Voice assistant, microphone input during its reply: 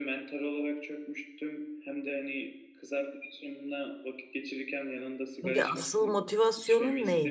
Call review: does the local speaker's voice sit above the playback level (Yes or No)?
Yes